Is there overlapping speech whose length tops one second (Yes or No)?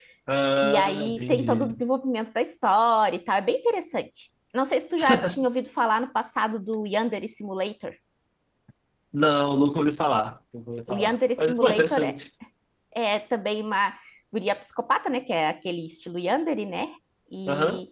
Yes